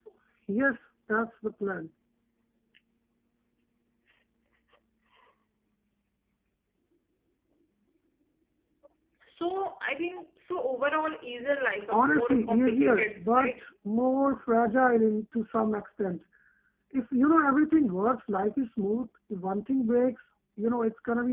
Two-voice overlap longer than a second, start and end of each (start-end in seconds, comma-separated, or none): 11.9-13.6